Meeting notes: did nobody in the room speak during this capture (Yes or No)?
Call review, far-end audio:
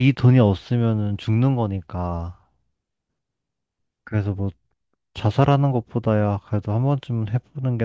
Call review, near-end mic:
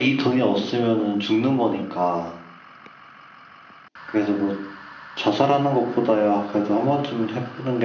Yes